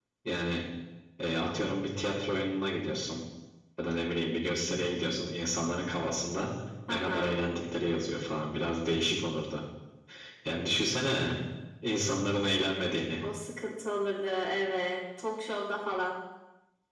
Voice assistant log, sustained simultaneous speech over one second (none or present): none